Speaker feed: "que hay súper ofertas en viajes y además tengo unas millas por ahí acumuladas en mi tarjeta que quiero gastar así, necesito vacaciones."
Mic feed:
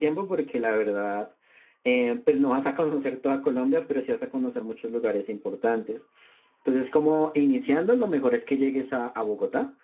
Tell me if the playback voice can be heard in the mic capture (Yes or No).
No